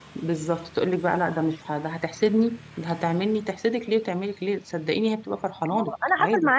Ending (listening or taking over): taking over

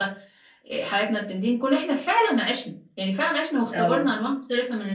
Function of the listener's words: listening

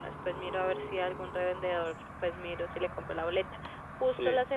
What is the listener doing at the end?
listening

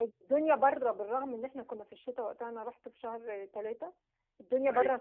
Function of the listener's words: listening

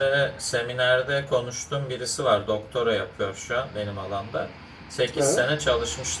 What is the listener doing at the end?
listening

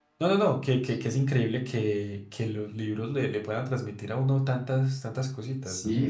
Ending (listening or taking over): taking over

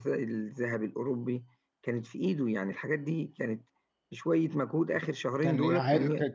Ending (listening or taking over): taking over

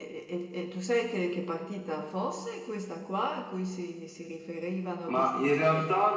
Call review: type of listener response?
taking over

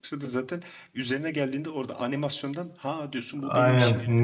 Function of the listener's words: taking over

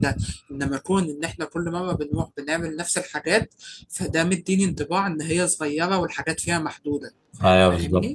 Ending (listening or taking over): taking over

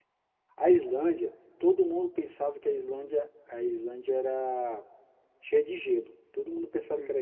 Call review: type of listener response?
listening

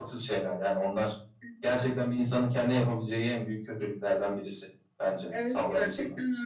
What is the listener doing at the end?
taking over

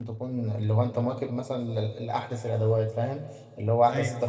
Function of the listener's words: listening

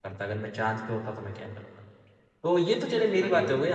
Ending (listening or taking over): listening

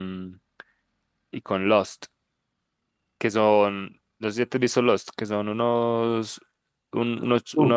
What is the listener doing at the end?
listening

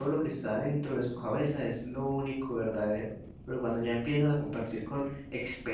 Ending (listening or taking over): listening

